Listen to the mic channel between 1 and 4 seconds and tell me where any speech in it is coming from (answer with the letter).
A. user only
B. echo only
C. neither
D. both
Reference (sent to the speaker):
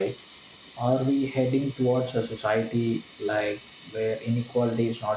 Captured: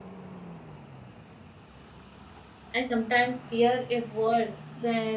A